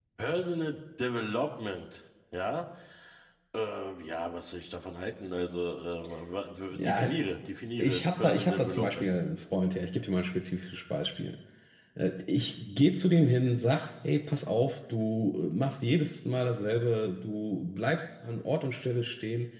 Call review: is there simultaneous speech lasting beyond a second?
Yes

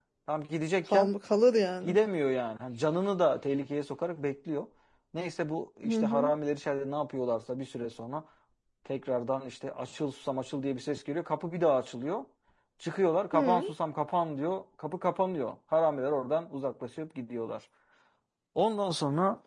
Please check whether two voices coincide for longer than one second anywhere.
No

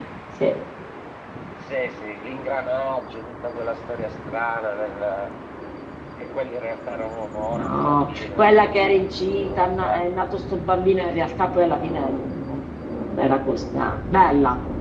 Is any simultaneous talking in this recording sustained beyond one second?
Yes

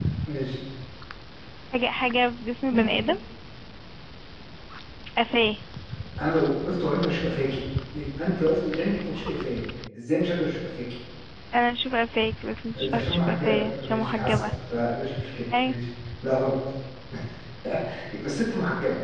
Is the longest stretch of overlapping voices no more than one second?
No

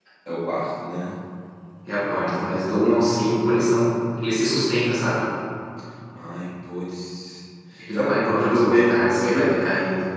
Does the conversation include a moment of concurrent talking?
Yes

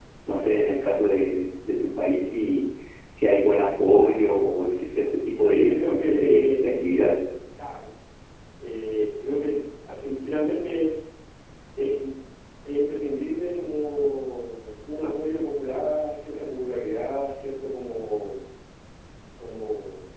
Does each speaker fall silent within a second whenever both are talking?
No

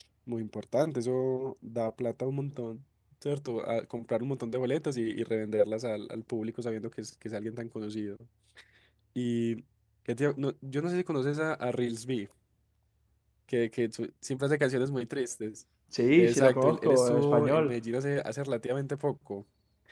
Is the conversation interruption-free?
No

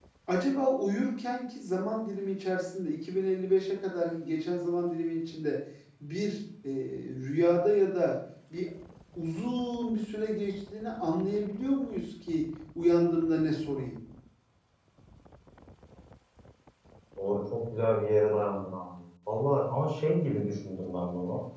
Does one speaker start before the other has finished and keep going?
No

